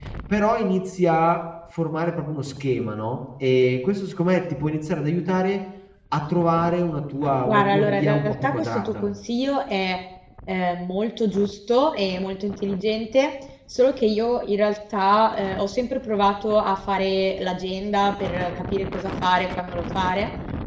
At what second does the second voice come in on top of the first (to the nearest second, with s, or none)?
7 s